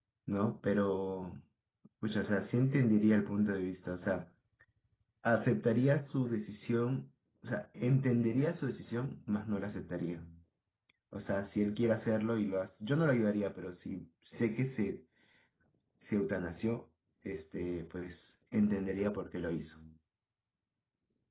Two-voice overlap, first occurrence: none

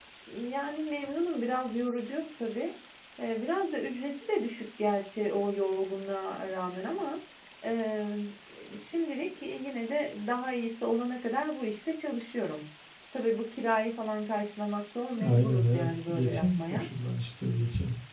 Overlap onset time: 15.1 s

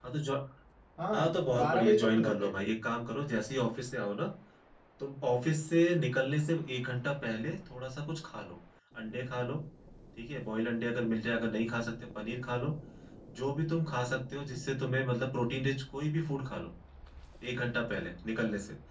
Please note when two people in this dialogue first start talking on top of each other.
1.1 s

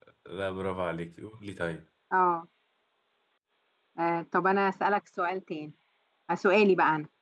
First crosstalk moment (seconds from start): none

